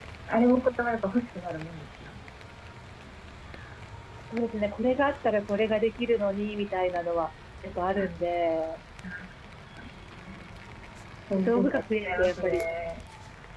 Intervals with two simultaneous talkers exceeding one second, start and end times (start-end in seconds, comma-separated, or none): 11.4-12.7